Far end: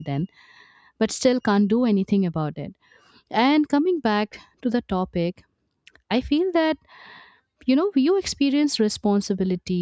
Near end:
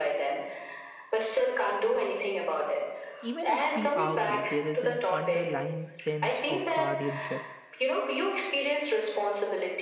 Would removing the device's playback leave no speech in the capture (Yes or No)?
No